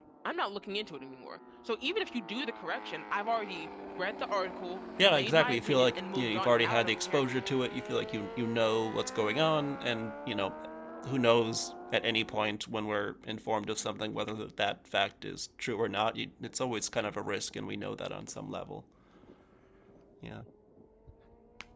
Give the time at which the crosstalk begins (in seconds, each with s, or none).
5.0 s